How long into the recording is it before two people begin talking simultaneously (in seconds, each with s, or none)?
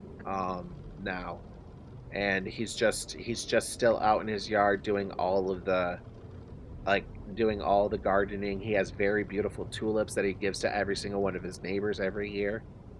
none